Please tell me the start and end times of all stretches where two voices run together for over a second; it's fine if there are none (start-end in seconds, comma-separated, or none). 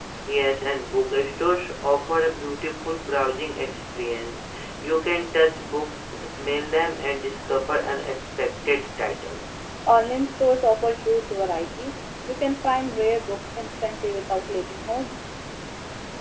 none